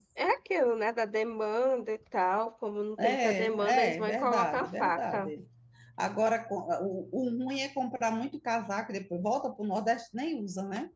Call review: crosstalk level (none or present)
present